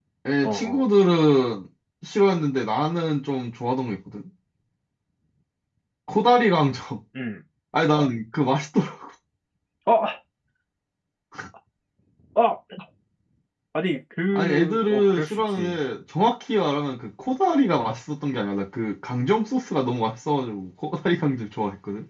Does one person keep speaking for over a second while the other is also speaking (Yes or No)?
Yes